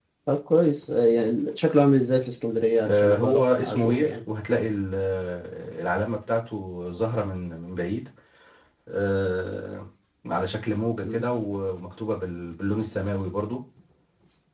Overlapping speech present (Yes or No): Yes